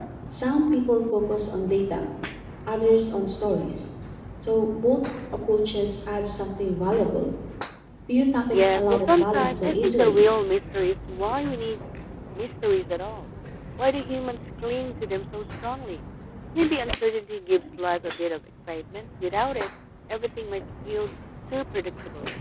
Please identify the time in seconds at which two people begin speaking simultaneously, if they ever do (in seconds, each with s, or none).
8.5 s